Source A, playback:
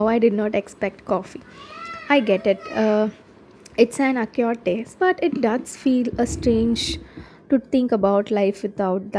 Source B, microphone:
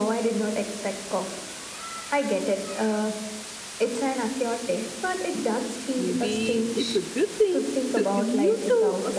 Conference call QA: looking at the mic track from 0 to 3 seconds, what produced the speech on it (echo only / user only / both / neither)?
echo only